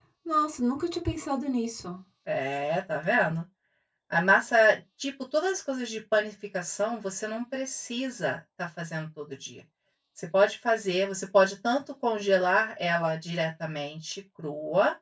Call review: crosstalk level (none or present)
none